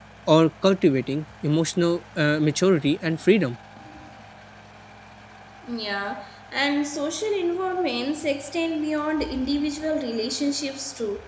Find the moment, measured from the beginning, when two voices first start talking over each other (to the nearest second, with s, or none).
none